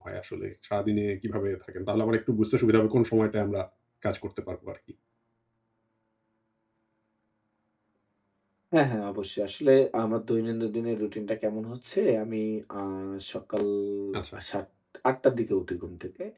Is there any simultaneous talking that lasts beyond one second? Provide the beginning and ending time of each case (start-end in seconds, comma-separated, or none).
none